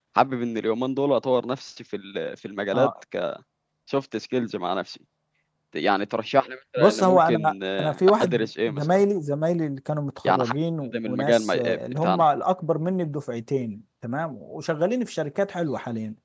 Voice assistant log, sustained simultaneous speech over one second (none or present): present